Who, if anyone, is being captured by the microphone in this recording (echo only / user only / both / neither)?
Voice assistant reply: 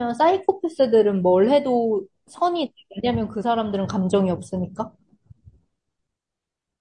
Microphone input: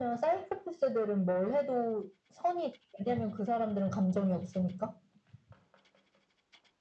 echo only